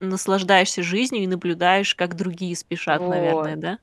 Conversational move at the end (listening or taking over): taking over